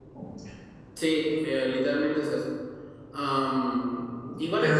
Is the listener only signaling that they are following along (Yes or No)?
Yes